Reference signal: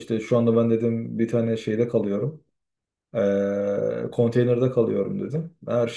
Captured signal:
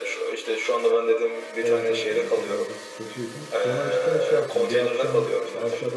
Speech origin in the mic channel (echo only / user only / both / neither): both